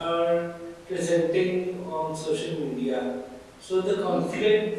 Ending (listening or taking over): listening